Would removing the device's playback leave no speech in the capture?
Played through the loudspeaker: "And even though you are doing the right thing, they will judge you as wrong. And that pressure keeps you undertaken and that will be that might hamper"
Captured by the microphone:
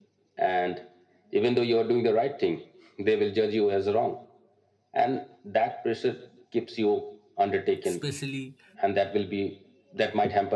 No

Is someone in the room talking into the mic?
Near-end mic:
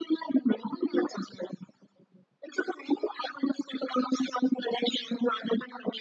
No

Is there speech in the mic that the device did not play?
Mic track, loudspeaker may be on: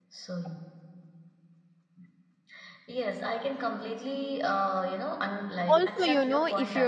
Yes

